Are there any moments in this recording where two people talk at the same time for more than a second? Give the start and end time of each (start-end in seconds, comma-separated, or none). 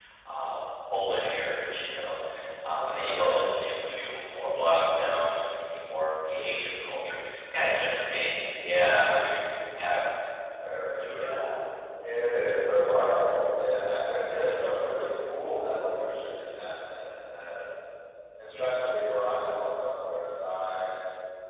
none